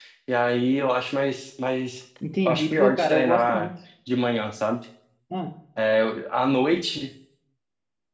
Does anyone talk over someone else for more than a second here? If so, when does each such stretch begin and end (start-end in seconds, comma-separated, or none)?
2.5-3.7